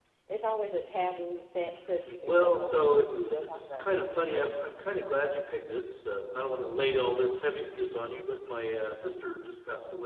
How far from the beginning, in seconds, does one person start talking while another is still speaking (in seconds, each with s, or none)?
2.3 s